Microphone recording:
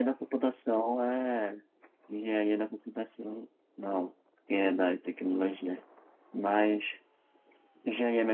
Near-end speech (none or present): none